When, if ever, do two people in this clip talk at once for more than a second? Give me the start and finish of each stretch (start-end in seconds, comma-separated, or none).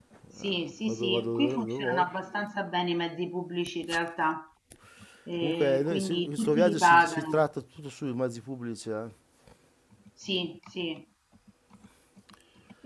0.8-2.1, 5.4-7.4